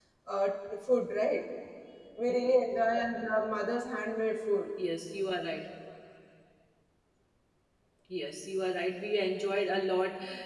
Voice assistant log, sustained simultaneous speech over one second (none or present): none